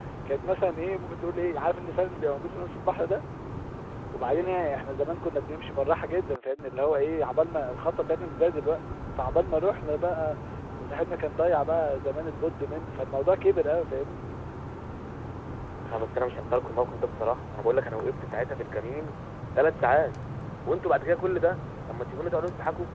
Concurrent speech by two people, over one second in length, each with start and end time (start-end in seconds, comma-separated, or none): none